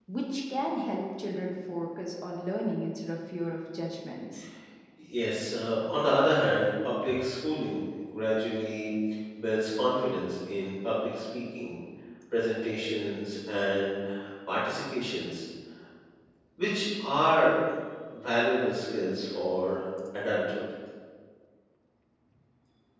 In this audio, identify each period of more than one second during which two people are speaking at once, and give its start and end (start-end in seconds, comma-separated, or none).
none